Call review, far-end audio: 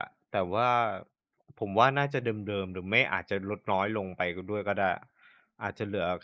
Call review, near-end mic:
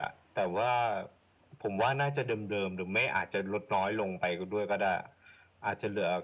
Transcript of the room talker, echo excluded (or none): none